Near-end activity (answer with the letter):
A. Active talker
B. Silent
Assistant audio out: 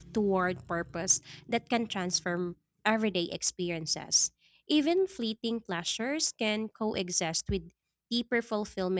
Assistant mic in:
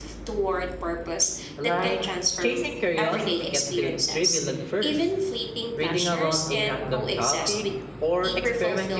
A